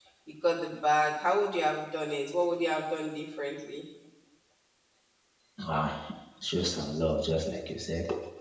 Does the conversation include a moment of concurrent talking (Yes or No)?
No